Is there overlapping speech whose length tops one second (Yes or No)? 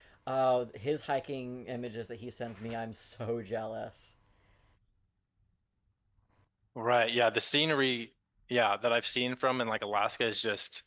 No